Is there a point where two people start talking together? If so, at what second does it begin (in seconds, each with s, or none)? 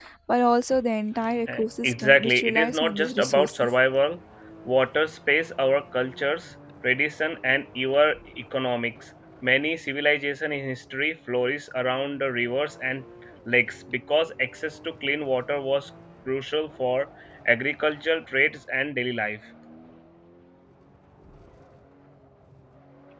1.5 s